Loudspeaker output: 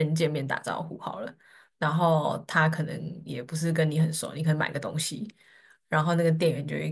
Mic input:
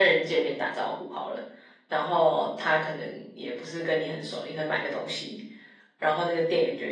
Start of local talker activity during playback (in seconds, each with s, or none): none